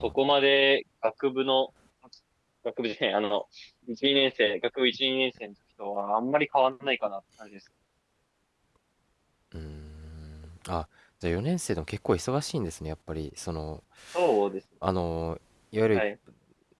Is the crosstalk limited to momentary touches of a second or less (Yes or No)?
Yes